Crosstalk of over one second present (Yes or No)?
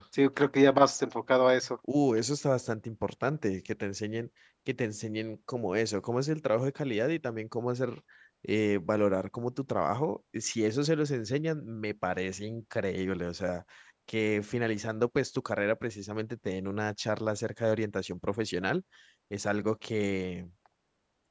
No